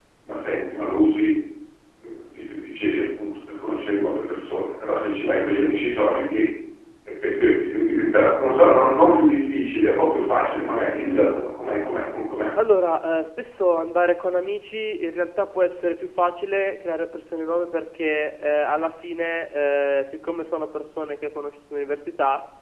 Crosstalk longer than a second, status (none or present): none